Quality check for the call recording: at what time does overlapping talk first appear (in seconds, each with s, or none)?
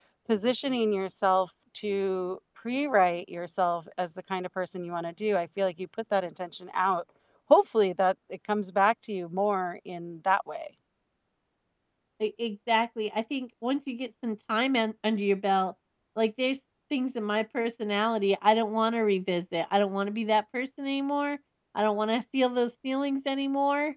none